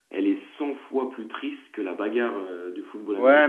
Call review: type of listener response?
taking over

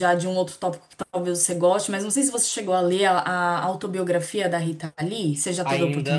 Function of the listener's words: taking over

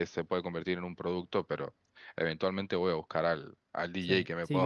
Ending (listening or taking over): taking over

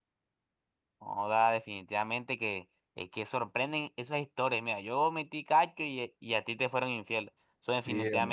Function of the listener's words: listening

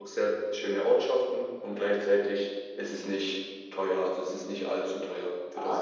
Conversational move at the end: taking over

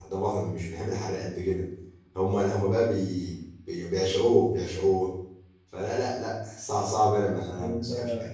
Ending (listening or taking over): listening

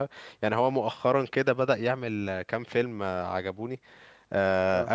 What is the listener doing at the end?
listening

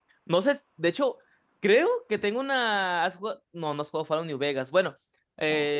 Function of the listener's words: listening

